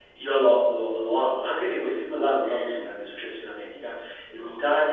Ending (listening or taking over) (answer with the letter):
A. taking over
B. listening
B